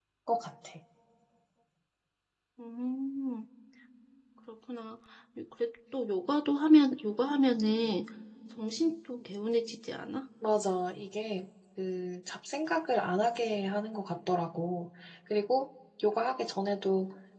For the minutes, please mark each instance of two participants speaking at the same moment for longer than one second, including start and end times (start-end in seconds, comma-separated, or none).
none